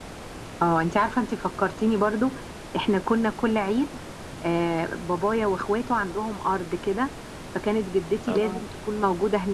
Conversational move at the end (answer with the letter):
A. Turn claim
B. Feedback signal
B